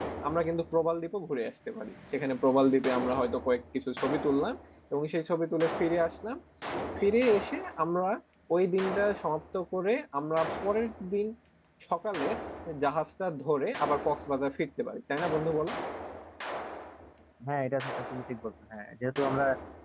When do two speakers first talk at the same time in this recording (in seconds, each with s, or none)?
none